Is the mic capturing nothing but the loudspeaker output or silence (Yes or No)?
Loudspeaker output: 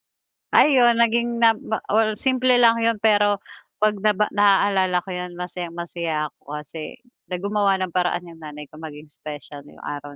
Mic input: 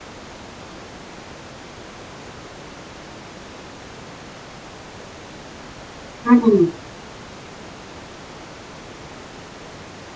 No